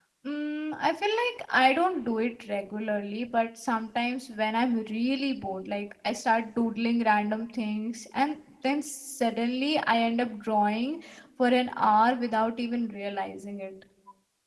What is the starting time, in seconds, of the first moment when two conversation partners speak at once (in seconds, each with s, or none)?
none